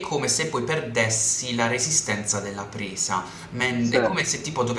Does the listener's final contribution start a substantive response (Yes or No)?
No